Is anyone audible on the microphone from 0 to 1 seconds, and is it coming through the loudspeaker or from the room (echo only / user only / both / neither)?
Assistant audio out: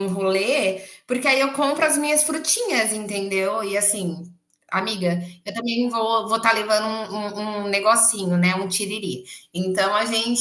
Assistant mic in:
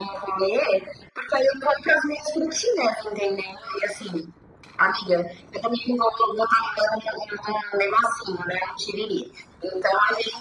echo only